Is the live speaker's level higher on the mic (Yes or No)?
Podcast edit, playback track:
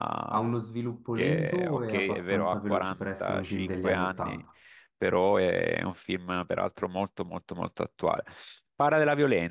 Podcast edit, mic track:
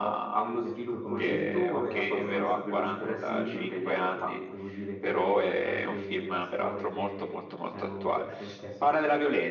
No